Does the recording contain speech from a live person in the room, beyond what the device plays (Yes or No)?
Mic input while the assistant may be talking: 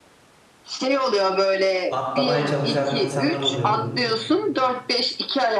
Yes